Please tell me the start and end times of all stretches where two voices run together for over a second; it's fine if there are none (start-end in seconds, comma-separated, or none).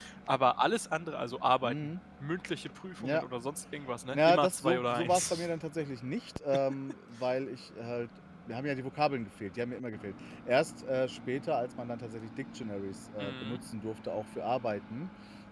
4.1-5.5